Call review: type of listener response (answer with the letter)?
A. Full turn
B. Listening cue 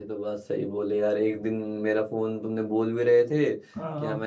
B